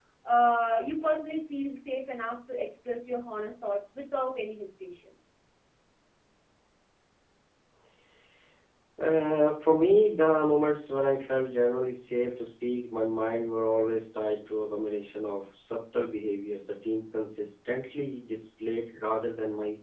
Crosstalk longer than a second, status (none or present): none